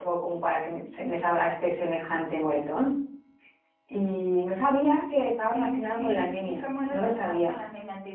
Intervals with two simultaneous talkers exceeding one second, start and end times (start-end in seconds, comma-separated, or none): 5.4-7.6